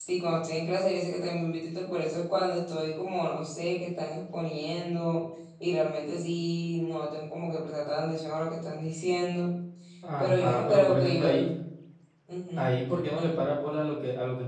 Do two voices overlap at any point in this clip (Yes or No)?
Yes